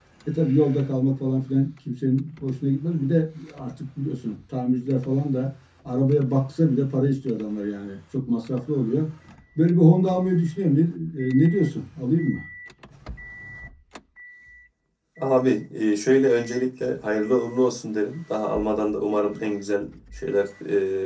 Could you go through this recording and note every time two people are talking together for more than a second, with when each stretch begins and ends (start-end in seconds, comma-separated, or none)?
none